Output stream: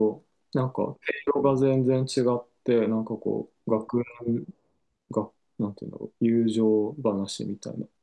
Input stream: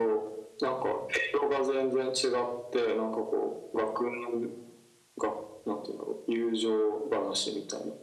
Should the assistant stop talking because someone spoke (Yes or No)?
No